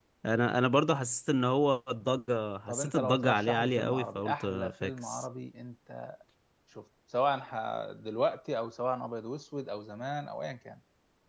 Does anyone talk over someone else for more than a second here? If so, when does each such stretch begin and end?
2.7-5.2

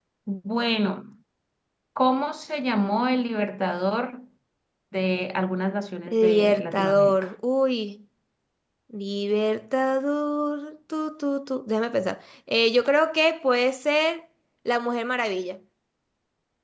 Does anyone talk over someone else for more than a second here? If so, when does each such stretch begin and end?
6.1-7.3

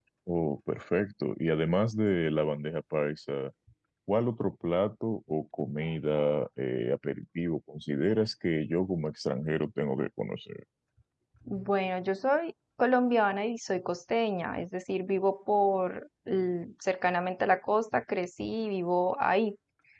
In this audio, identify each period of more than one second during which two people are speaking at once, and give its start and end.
none

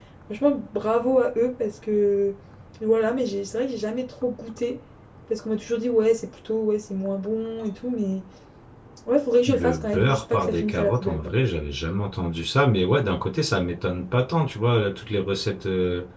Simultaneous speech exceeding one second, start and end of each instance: 9.5-11.3

